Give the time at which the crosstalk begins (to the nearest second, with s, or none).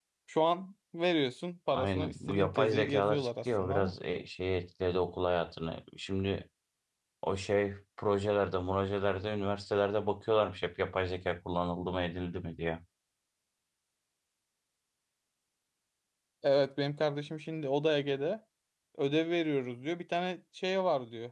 2 s